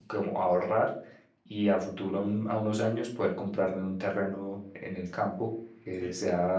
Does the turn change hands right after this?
No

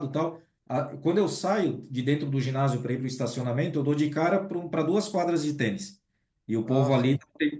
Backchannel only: Yes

